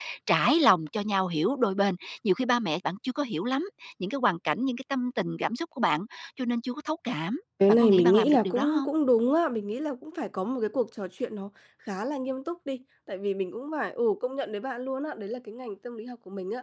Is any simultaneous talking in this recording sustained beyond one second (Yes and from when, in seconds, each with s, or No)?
Yes, from 7.6 s